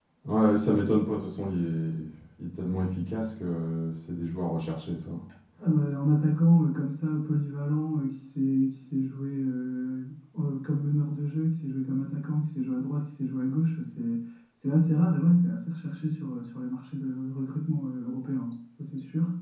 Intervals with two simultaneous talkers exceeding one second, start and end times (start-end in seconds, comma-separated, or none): none